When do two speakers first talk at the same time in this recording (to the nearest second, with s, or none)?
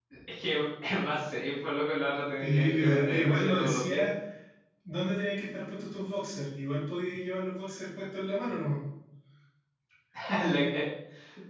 2 s